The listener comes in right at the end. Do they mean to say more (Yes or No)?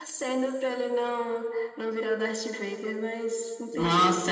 Yes